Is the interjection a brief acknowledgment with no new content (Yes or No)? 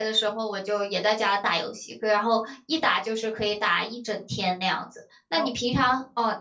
Yes